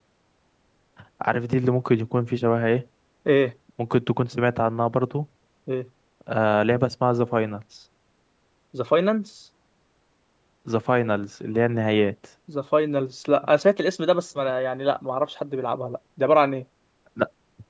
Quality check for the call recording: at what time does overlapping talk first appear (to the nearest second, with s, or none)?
none